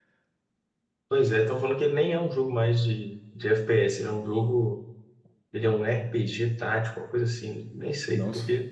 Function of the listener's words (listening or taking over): listening